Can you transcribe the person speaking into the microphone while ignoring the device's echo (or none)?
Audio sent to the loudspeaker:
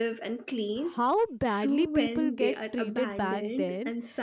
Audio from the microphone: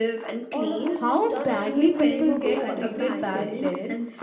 All of this was done under the name of what? Treatment